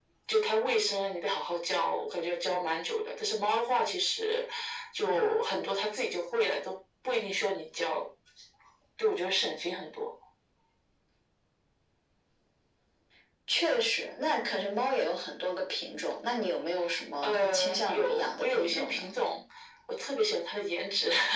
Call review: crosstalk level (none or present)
present